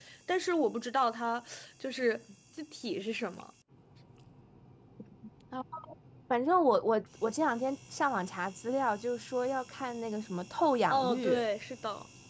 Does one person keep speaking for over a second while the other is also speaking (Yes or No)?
No